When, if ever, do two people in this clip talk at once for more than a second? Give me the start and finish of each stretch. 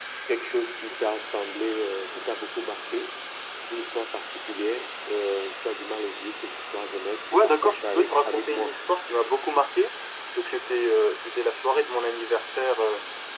7.3-8.7

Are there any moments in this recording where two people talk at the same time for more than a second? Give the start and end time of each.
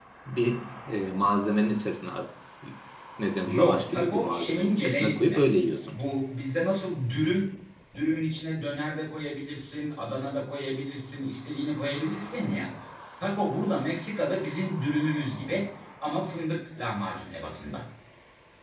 3.5-5.4

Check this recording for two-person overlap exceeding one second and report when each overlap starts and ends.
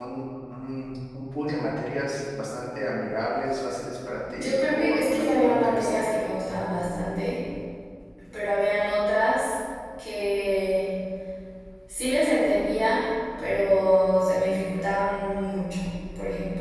4.3-6.0

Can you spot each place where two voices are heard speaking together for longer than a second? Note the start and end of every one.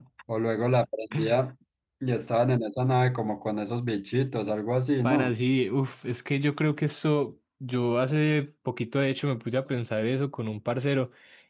none

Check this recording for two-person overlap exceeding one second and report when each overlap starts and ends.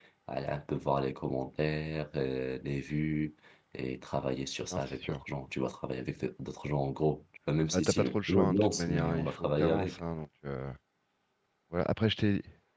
7.7-10.0

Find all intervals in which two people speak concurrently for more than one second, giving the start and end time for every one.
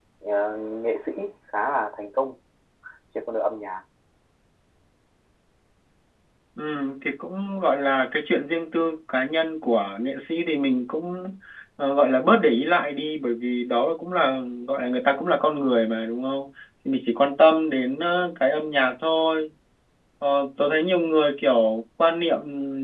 none

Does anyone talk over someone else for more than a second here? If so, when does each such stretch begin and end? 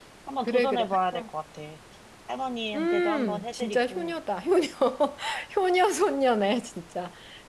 2.8-4.1

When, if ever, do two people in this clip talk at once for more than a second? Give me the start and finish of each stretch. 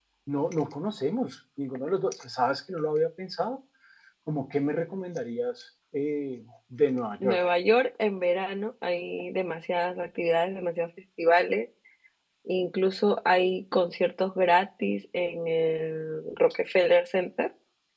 none

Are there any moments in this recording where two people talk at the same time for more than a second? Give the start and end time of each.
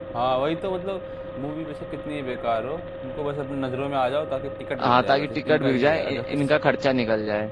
4.8-6.5

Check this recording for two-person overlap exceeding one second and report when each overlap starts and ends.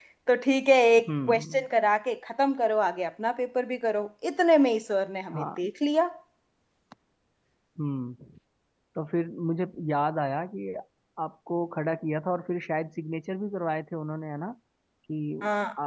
none

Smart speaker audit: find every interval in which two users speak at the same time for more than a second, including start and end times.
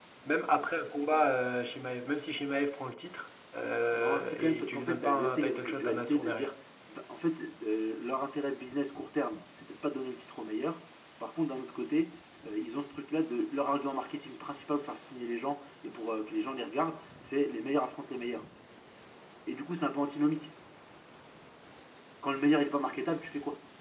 3.9-6.5

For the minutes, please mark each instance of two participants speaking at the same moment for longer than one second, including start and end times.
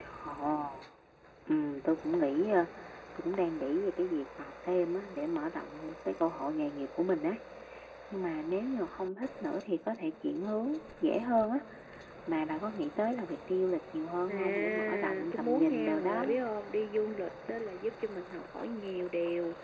14.3-16.4

